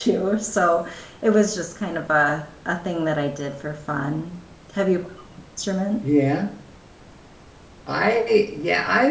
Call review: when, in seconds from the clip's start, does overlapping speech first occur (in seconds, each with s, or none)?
none